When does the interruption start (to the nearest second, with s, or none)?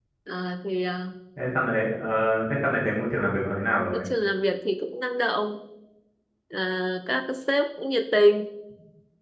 none